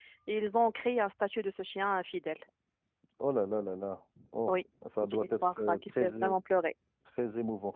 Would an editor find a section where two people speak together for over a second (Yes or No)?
Yes